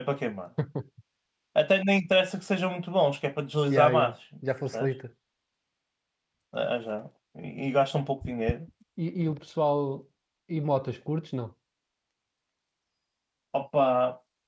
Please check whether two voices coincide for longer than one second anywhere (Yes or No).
No